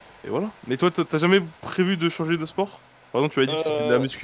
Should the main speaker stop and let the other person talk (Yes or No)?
No